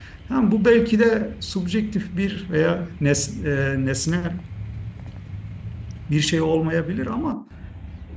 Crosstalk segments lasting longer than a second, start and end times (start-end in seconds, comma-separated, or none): none